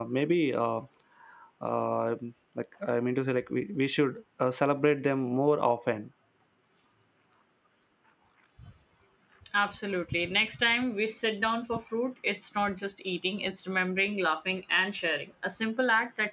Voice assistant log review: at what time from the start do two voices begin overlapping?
none

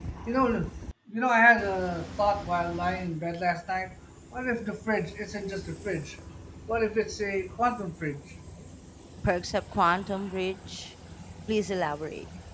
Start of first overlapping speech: none

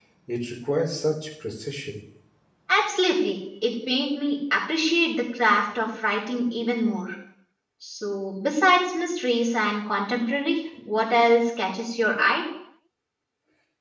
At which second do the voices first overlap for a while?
none

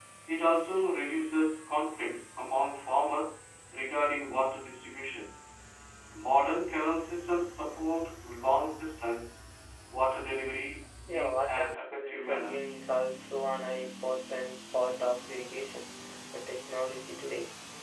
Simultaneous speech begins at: 11.1 s

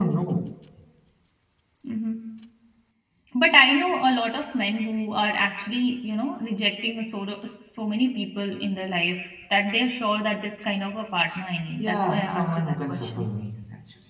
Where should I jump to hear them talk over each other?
11.8 s

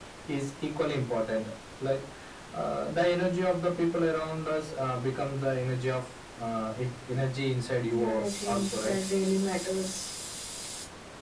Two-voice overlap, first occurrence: 7.8 s

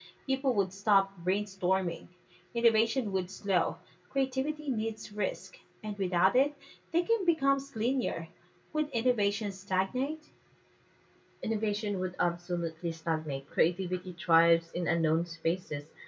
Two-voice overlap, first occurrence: none

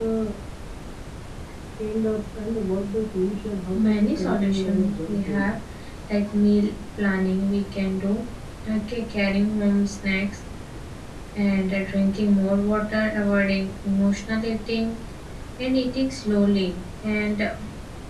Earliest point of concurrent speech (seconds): 3.7 s

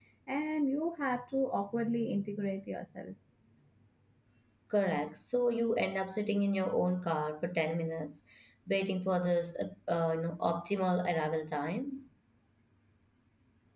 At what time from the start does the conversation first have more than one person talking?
none

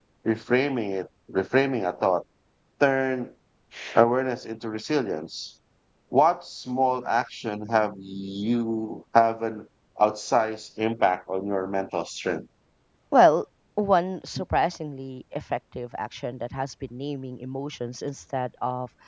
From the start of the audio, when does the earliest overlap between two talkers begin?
none

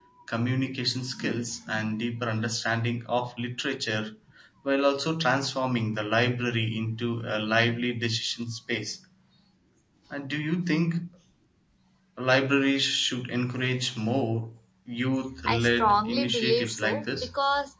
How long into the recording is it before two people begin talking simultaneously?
15.3 s

